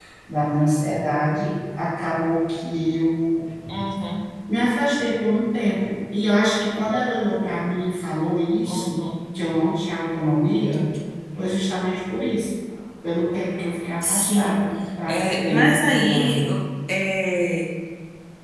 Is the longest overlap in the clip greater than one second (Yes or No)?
Yes